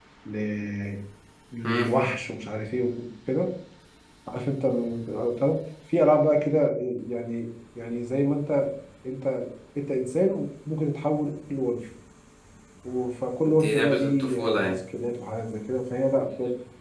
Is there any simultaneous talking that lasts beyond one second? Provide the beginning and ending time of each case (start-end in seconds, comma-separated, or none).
13.5-14.7